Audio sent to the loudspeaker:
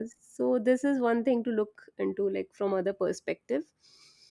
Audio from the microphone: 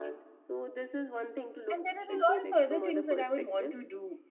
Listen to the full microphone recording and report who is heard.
both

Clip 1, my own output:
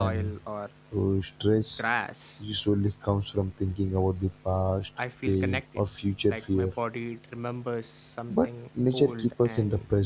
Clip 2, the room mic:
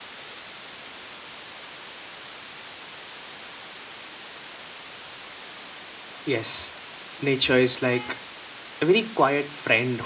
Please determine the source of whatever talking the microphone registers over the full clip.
user only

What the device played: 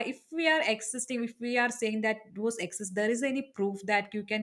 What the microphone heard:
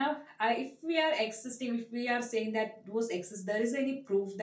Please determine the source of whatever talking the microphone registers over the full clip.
echo only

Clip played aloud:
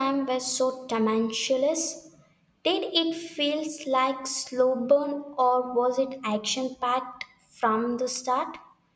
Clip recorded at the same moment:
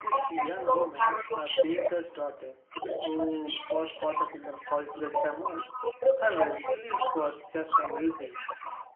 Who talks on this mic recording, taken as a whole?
both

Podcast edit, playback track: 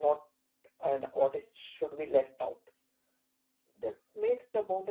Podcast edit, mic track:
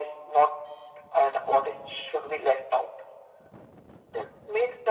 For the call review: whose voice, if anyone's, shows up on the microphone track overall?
echo only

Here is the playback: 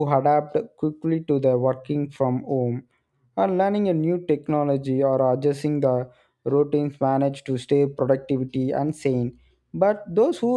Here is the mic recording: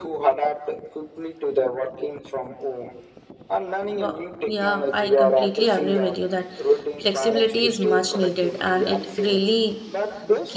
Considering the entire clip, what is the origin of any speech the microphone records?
both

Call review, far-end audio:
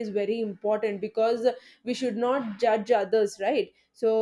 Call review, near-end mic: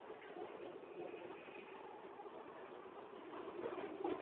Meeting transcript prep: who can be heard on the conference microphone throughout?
neither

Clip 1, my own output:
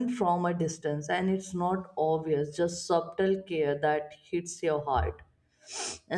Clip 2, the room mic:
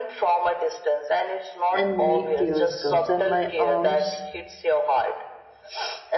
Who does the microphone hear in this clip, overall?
both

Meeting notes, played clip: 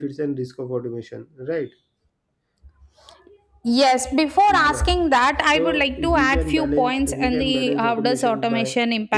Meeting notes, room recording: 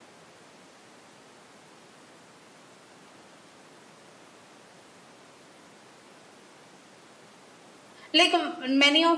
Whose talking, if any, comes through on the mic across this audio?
user only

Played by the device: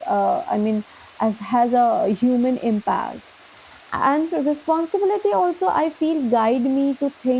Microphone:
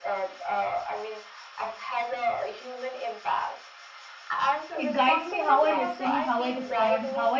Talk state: both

